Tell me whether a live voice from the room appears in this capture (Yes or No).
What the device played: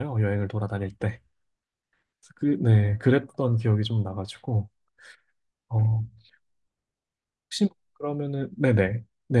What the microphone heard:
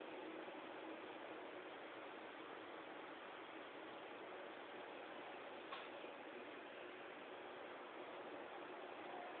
No